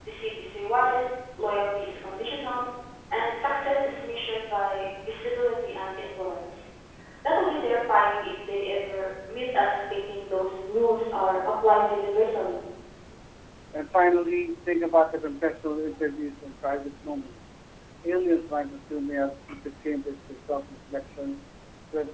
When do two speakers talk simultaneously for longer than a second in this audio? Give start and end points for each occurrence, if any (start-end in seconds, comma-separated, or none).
none